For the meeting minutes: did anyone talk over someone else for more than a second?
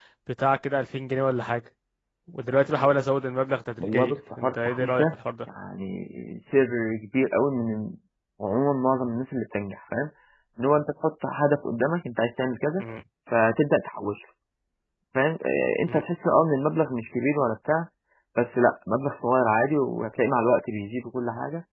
Yes, from 3.8 s

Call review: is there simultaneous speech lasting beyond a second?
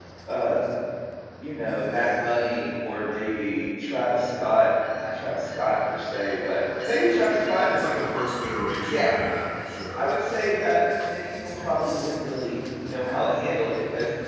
No

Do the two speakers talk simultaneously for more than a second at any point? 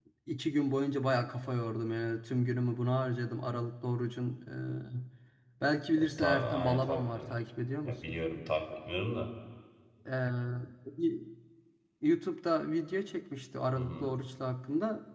Yes, from 6.0 s

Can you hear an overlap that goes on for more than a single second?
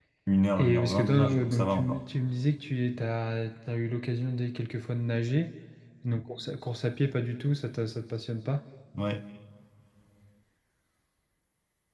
Yes, from 0.6 s

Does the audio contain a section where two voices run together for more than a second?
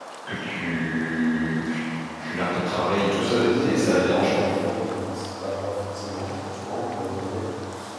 Yes, from 3.1 s

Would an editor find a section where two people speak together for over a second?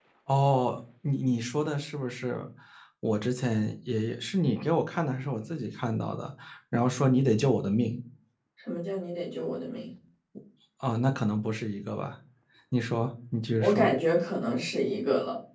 No

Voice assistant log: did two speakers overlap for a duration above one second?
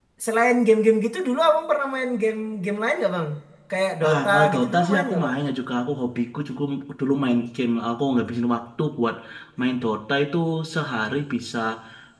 Yes, from 4.1 s

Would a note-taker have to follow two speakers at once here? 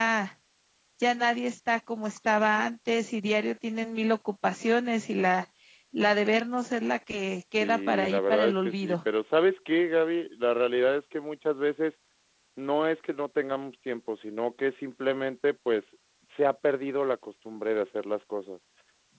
Yes, from 7.6 s

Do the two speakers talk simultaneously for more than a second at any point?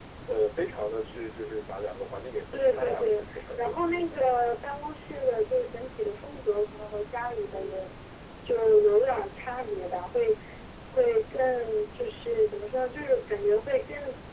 Yes, from 2.5 s

